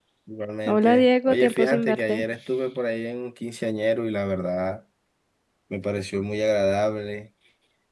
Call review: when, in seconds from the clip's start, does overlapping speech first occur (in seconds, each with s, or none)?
0.7 s